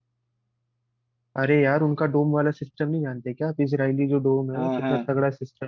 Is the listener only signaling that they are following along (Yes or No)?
Yes